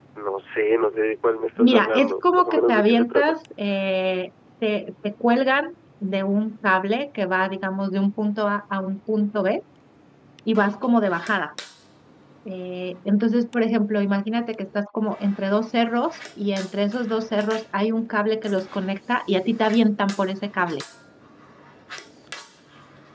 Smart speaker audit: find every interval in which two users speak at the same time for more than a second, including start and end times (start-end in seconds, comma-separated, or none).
1.6-3.4